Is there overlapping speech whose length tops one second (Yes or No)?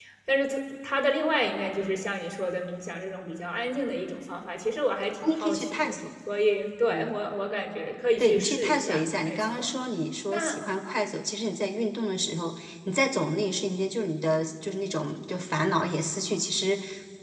Yes